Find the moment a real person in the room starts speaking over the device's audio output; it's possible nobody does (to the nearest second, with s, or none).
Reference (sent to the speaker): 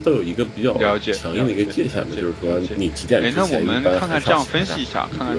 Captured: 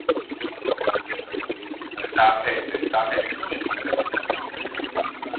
2 s